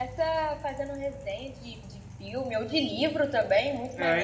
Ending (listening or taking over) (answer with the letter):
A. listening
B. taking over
B